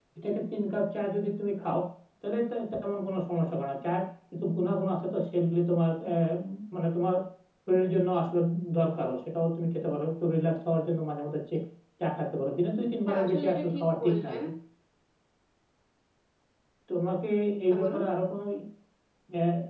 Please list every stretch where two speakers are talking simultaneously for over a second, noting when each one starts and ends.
13.1-14.4

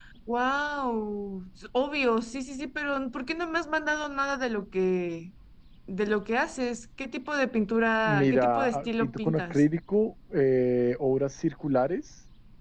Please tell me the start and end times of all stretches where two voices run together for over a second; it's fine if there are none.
8.1-9.6

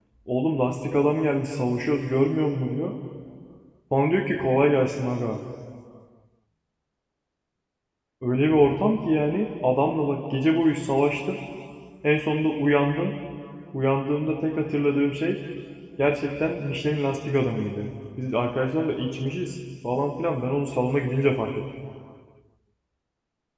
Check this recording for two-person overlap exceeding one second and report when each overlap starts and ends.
none

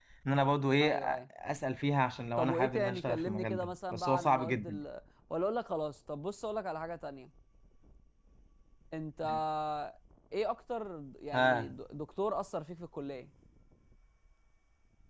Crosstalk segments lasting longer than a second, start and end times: 2.4-4.8

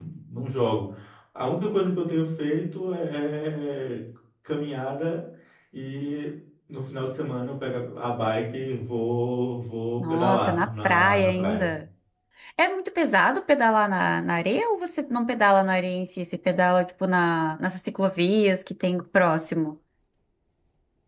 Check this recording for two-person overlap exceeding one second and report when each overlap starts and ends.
10.0-11.7

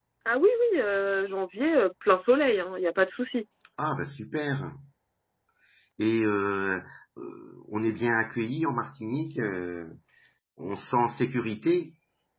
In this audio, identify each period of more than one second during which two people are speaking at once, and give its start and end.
none

